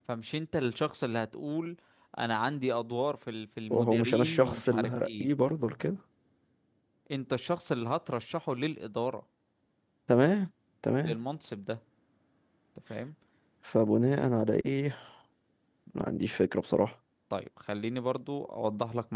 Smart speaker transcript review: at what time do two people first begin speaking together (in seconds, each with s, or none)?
3.7 s